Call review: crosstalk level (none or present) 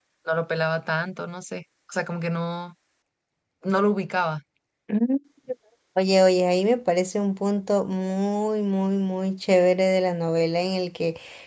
none